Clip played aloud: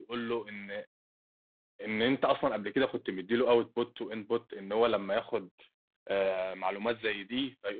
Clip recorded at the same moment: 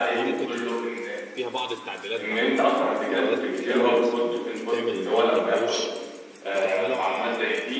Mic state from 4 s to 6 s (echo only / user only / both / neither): both